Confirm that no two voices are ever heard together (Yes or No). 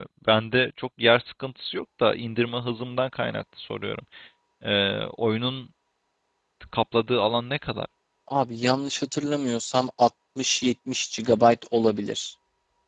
Yes